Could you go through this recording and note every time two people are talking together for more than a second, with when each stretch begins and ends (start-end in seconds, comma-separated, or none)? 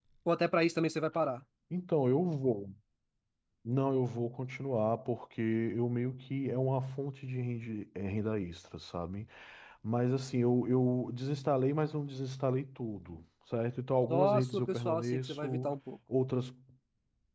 14.1-15.7